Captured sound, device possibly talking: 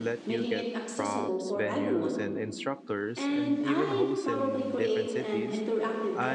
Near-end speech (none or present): present